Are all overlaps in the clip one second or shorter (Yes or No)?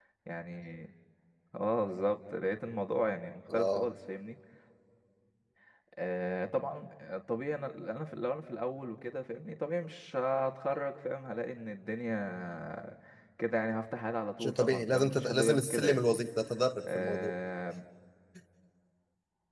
No